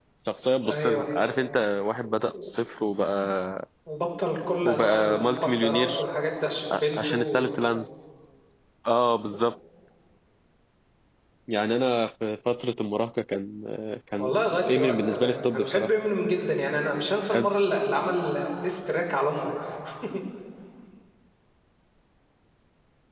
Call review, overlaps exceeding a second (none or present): present